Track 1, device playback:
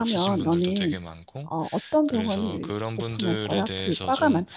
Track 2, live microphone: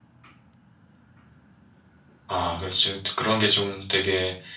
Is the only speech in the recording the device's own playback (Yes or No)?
No